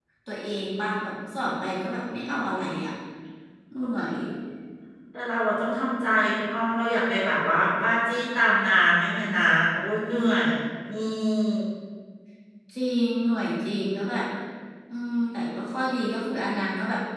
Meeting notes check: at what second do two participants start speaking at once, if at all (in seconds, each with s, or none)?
none